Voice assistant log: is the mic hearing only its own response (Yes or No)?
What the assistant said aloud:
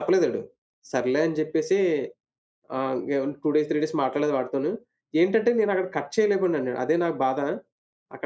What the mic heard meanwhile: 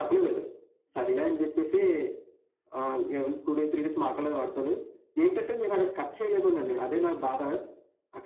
Yes